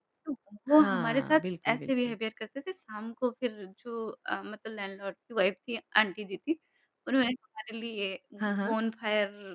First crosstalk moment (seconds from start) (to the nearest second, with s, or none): 1 s